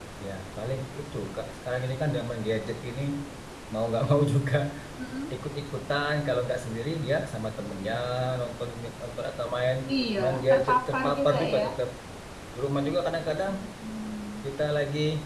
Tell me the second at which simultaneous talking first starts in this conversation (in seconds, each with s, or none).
10.2 s